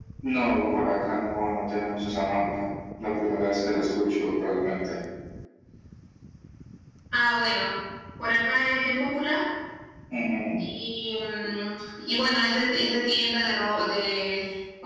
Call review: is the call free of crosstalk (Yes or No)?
Yes